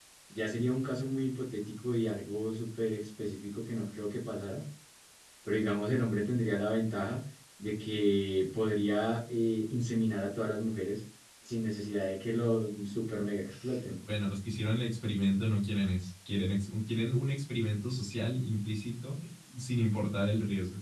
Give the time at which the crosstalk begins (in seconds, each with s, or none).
none